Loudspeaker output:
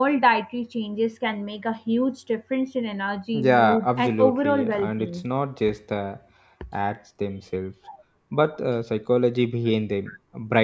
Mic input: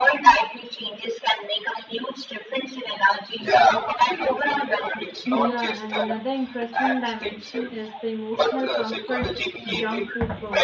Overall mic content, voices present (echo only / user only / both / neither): both